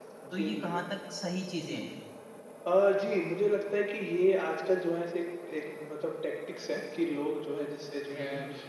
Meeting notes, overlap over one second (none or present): none